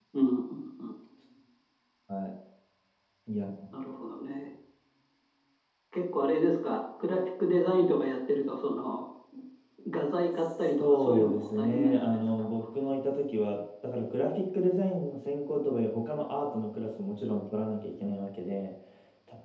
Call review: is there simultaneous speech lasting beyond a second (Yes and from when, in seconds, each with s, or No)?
Yes, from 10.3 s